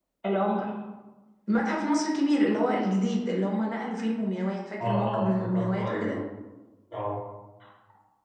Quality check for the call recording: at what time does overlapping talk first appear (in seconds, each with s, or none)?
4.8 s